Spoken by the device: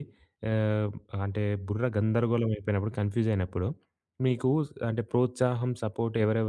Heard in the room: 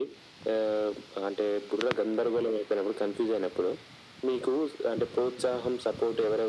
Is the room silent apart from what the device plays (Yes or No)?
Yes